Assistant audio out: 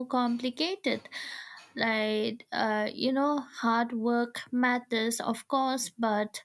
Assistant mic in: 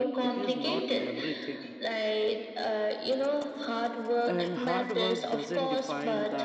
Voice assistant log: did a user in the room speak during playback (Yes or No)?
Yes